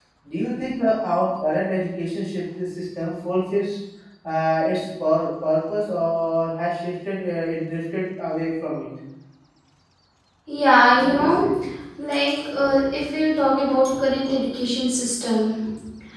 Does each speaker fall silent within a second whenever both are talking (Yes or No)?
Yes